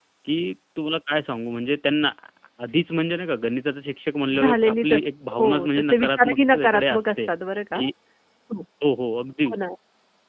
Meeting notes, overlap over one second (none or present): present